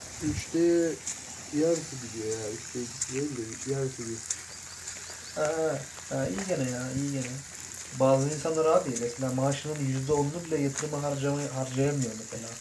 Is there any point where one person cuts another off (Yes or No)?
No